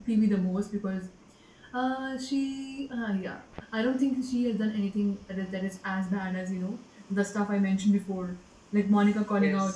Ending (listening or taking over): listening